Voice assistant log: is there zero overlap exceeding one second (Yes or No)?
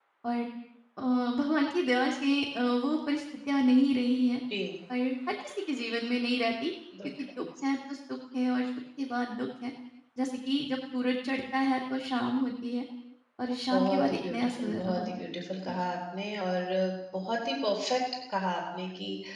No